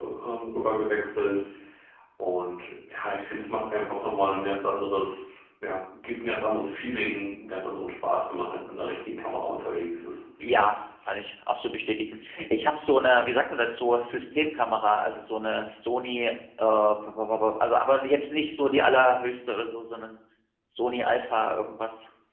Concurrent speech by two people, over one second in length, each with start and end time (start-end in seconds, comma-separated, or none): none